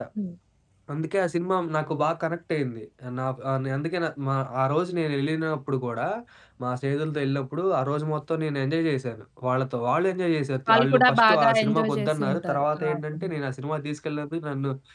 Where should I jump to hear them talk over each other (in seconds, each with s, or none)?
10.7 s